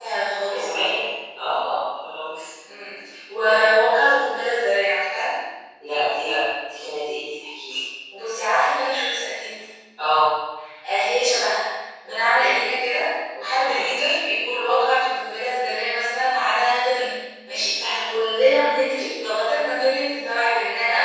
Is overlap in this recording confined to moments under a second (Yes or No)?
Yes